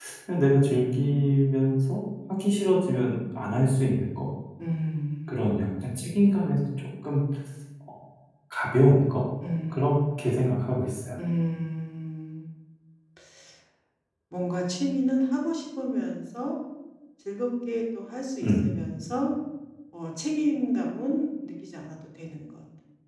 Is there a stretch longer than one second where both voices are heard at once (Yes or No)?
No